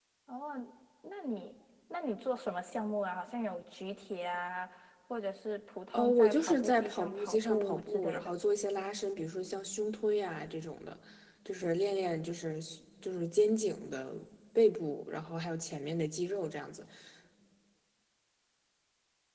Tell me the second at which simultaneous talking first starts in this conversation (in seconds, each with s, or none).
5.9 s